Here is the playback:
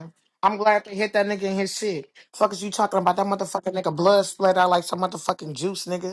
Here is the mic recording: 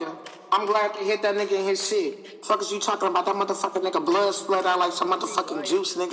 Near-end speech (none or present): present